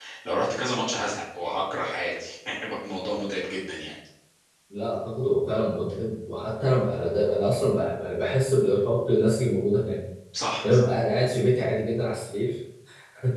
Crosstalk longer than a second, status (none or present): none